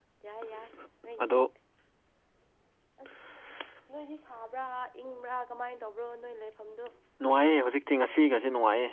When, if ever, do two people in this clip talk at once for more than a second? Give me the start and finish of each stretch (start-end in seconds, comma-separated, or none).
none